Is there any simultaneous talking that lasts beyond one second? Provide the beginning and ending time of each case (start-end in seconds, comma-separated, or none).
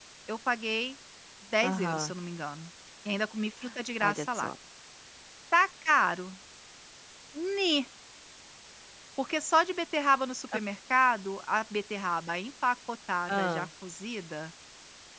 none